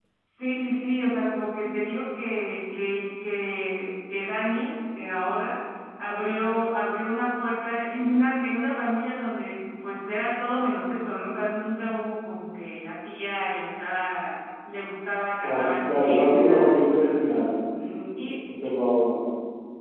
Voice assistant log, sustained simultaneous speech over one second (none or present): present